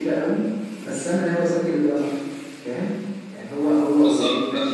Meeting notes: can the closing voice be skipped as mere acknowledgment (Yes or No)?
Yes